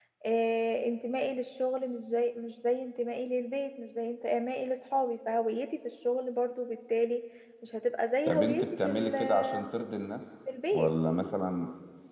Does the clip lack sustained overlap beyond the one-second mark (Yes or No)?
No